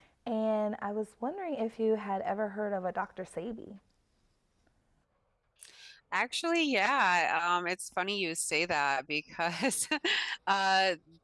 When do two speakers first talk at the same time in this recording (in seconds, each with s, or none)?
none